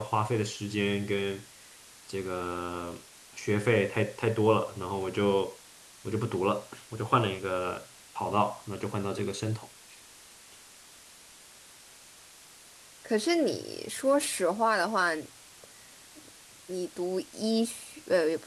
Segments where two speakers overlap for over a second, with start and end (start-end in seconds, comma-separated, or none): none